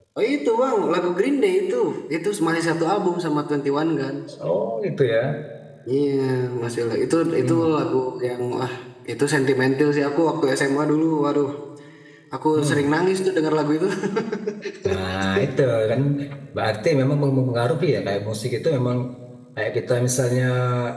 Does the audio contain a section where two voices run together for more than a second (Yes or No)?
No